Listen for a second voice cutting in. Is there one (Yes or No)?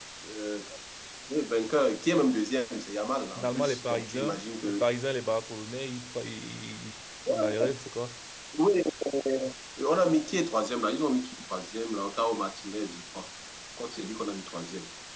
Yes